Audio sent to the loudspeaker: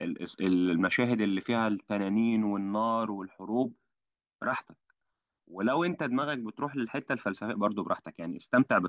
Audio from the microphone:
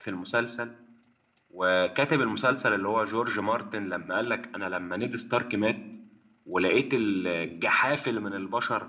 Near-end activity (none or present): present